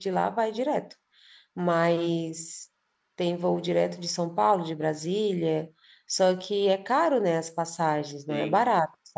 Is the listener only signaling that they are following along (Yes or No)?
No